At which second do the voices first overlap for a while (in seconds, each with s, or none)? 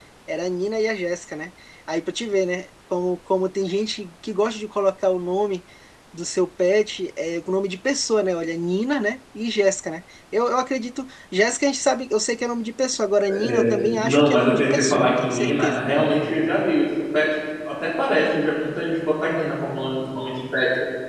13.3 s